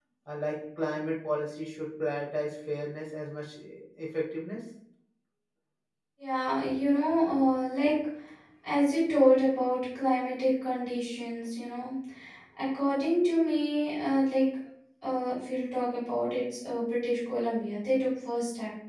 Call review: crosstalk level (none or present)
none